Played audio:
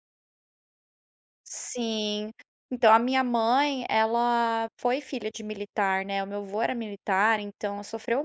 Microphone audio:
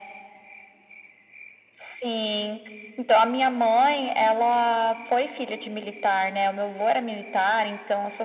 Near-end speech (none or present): none